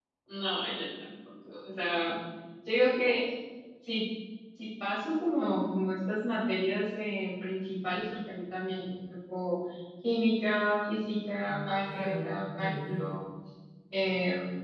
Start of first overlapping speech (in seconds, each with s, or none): 11.4 s